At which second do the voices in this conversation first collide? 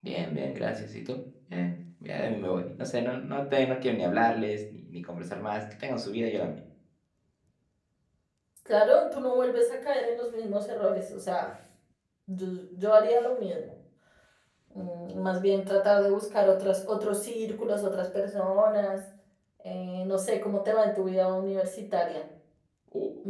none

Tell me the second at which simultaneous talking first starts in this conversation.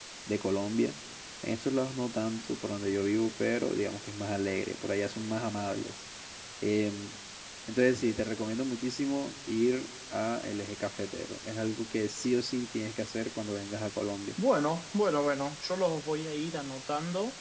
none

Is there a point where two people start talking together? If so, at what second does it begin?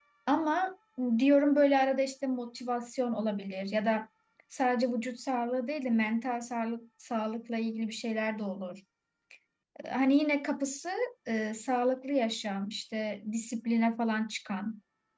none

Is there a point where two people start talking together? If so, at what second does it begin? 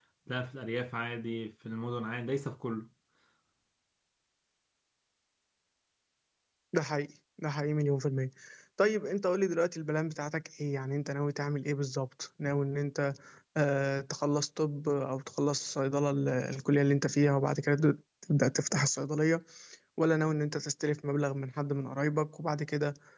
none

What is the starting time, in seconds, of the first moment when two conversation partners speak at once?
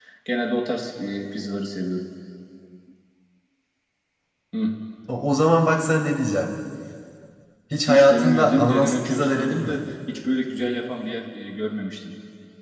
8 s

